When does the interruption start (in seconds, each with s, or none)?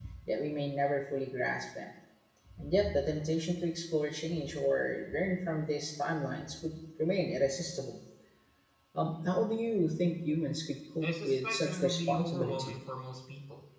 11.0 s